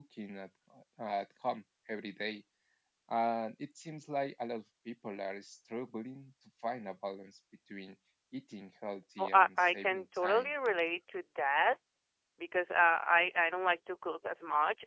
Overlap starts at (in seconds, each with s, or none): 9.2 s